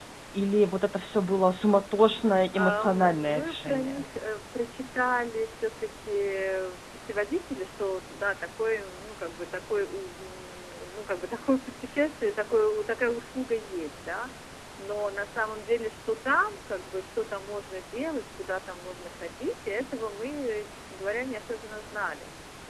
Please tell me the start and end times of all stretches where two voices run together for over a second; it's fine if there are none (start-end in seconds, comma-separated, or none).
2.5-4.0